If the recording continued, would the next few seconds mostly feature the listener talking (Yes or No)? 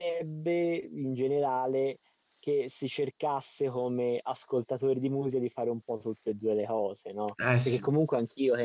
No